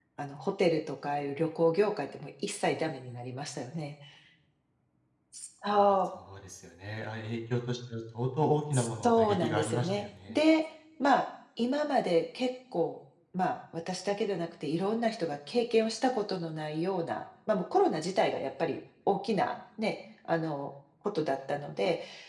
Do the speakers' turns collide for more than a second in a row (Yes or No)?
Yes